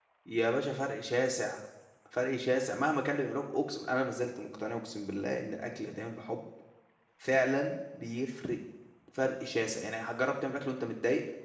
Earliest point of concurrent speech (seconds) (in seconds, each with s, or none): none